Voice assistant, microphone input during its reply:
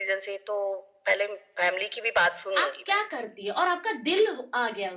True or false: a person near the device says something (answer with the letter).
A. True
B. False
A